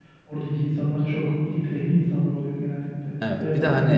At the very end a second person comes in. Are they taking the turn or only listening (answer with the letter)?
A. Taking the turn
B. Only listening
A